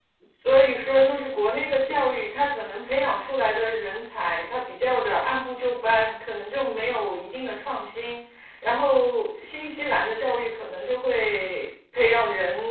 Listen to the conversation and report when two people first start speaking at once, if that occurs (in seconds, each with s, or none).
none